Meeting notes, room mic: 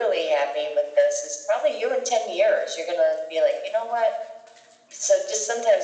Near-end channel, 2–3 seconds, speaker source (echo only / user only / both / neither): echo only